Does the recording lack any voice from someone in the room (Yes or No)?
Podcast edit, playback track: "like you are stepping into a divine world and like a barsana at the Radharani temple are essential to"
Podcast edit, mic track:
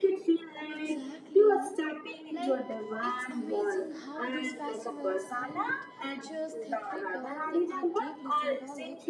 No